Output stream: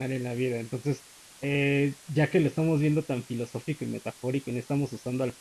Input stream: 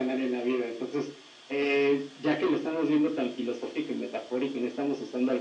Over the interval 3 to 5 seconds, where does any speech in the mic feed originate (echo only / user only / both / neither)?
echo only